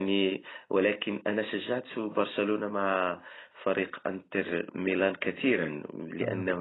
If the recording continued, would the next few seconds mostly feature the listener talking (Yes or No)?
No